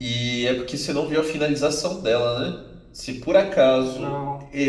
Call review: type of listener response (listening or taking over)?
listening